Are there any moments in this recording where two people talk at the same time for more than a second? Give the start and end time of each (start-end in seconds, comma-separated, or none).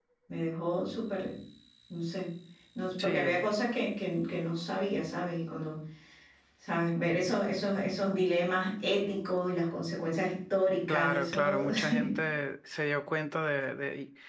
10.9-12.1